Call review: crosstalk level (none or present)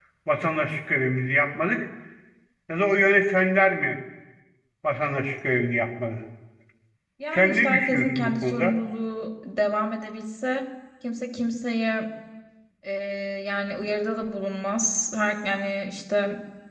present